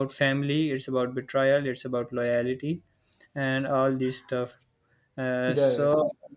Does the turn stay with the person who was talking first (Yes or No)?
Yes